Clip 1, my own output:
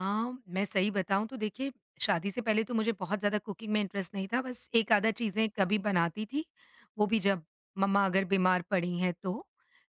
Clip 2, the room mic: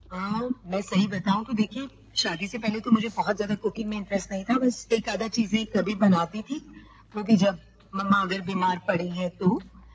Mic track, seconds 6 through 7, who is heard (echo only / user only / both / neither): echo only